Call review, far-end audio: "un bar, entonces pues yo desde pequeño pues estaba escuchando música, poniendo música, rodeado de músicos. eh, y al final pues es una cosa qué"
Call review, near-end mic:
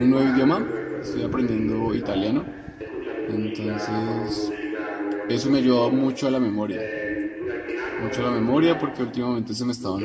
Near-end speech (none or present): present